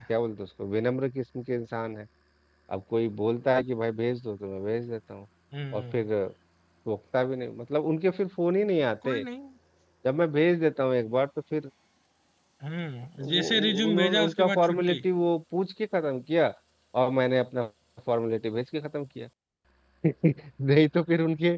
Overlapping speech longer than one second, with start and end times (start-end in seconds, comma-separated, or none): 13.2-15.0